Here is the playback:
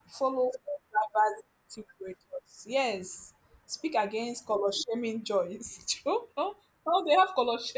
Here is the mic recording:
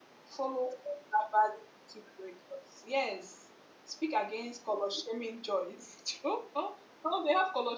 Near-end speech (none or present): none